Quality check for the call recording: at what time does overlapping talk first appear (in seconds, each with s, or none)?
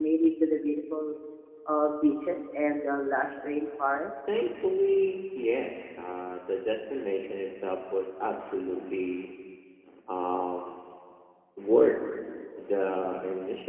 none